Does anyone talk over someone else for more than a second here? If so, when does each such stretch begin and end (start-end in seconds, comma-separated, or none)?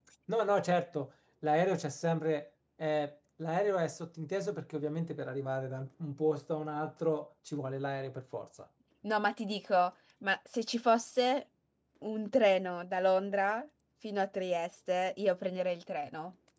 none